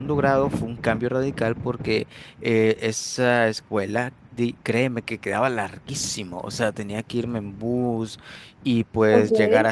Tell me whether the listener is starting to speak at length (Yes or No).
No